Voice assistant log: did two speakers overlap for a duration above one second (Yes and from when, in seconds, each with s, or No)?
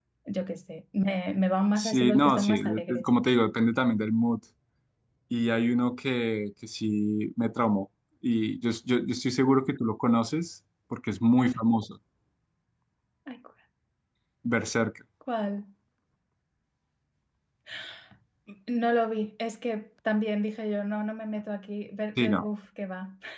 Yes, from 1.8 s